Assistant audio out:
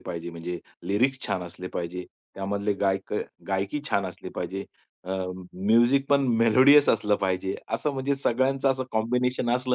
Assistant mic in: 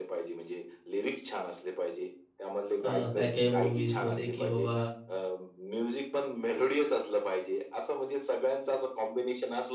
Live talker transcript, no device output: अ, काही-काही मूव्हीजमध्ये की बाबा

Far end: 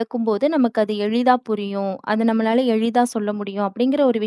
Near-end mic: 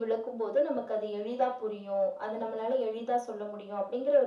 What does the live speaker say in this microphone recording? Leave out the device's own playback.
none

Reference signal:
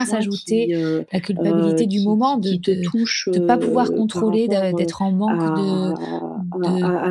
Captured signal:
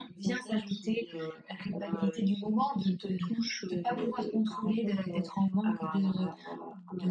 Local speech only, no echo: none

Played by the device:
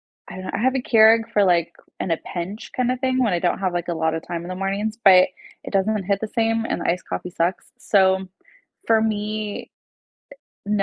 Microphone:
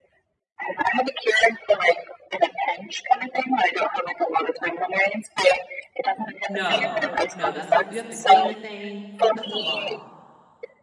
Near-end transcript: No. No, that's a l you have to clean the thing. That's a lot.

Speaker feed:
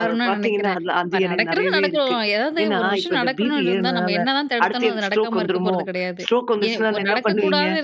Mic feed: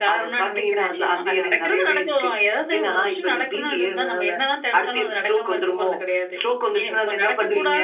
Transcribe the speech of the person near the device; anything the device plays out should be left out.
நிச்சயமா.

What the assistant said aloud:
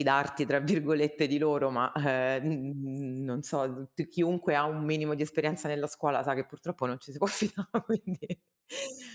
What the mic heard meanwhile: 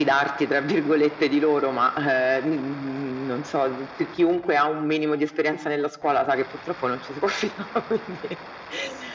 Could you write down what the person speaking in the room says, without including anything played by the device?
none

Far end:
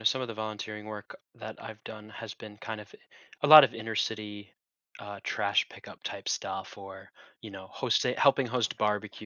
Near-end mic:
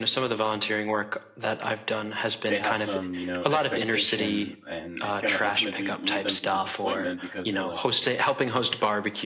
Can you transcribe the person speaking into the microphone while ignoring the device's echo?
They have some you know expectation, and it's going to ultimately lead them to disappointment because they're like,

